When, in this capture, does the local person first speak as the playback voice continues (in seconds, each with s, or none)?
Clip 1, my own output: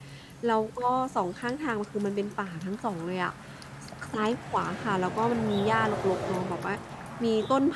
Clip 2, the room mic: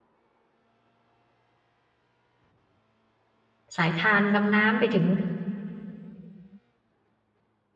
3.8 s